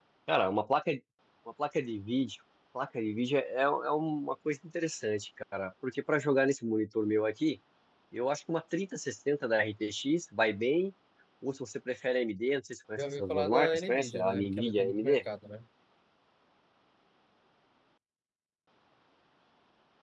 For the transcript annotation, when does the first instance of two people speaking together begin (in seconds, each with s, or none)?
13.0 s